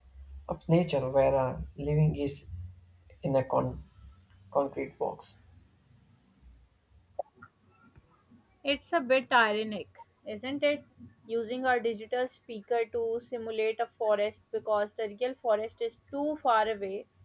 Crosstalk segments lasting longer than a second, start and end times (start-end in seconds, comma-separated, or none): none